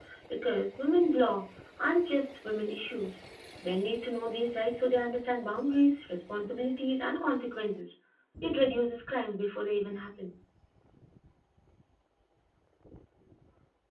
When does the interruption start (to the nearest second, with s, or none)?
none